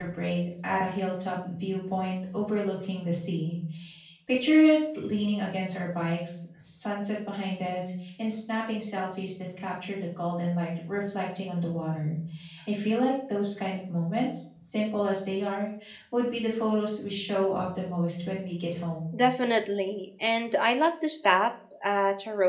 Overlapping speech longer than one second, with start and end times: none

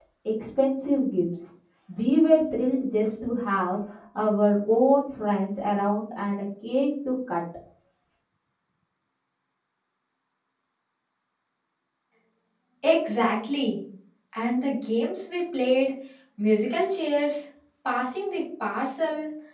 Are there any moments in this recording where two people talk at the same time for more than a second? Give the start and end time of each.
none

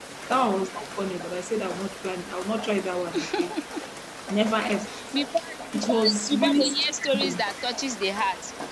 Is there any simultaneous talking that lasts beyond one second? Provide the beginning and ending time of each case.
5.7-7.3

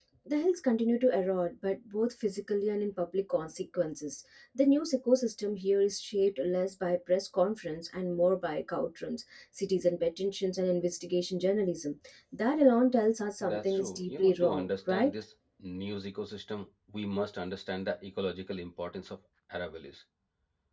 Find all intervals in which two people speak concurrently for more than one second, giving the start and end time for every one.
13.4-15.1

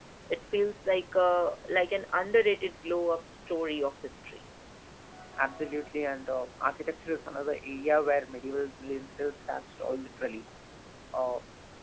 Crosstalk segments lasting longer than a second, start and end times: none

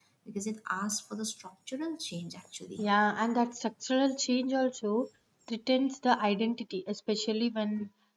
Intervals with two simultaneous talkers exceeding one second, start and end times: none

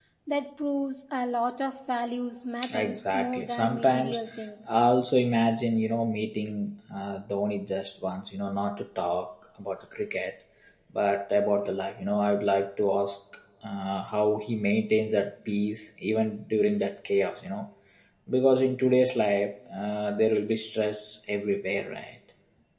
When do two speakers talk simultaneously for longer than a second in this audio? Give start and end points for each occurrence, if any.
2.7-4.2

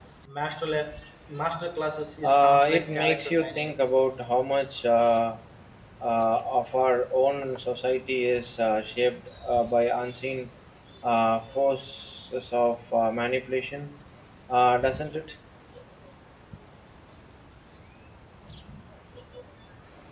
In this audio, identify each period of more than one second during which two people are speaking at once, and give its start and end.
2.2-3.8

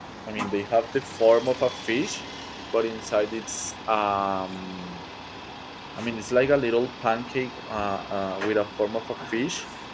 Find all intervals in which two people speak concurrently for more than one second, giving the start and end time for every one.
none

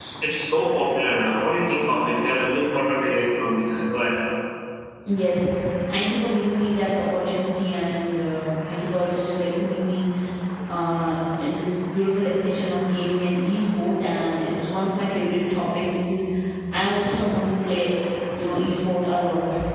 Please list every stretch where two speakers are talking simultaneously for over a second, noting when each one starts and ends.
none

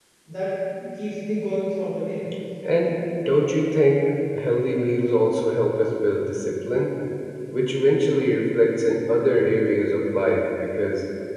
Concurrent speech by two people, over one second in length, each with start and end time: none

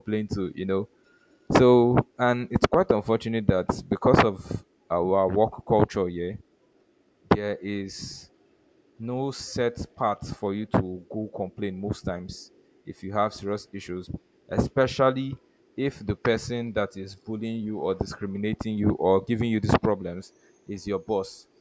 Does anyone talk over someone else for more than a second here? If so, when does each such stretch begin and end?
none

